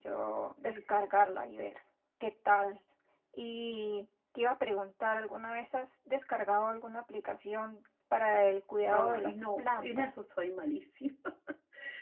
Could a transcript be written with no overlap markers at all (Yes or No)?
No